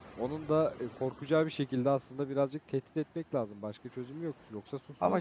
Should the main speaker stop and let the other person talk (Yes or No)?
Yes